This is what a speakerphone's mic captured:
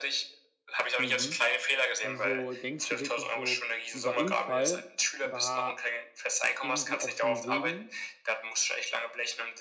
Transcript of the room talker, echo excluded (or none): Mhm. Also, denkst du wirklich so, dieser Unfall war irgendwie auch schon Segen,